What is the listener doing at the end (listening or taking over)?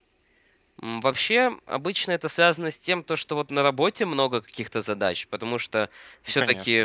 listening